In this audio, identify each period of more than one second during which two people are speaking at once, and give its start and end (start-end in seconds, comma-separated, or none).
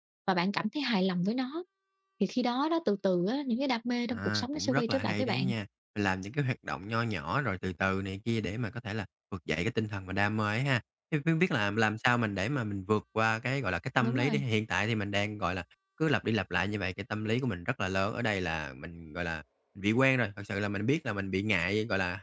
4.1-5.5